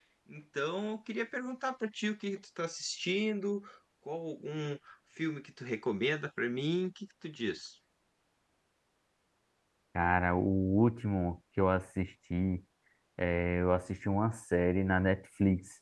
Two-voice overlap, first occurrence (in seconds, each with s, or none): none